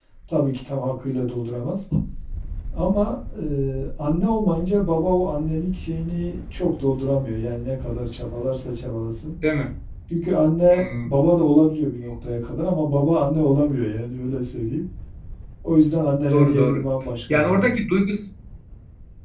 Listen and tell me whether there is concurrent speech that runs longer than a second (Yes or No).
No